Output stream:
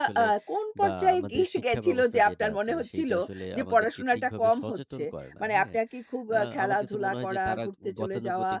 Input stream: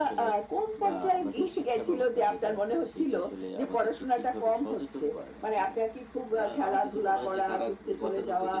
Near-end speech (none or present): none